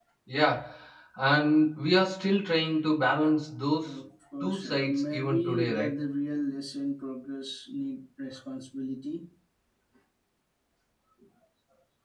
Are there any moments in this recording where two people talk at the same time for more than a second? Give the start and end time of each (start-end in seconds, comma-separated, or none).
4.4-5.9